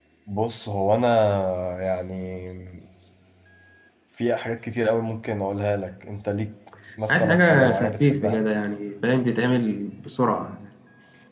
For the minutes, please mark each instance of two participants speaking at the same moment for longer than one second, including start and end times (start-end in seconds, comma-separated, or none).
7.1-8.5